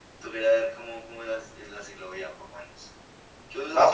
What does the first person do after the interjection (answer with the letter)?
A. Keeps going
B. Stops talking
B